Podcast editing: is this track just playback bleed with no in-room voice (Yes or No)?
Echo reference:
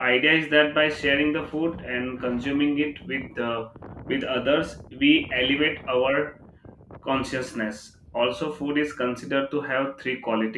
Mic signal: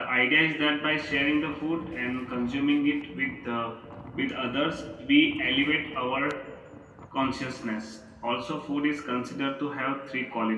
Yes